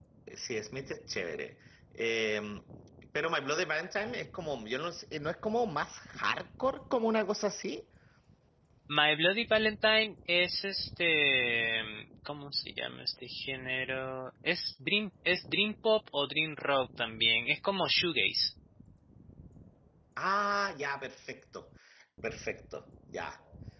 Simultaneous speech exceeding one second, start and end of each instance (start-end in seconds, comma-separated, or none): none